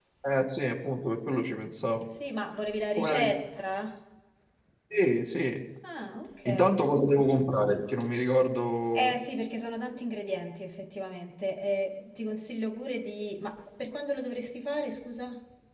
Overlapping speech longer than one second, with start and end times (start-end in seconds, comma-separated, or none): none